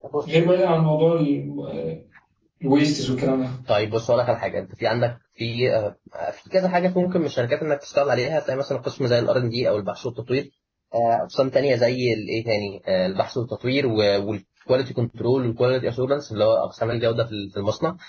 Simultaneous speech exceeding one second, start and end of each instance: none

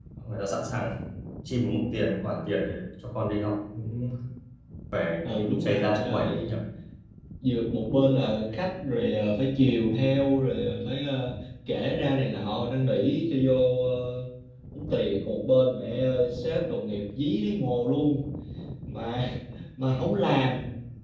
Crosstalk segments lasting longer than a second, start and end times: 5.2-6.5

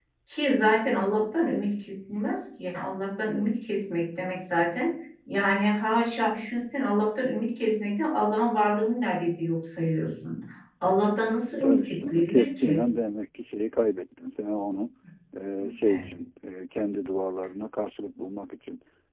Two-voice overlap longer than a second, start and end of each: 11.6-12.8

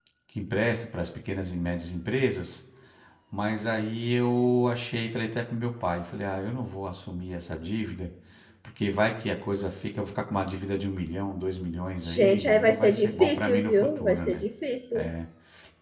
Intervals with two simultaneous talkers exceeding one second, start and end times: 12.0-14.4

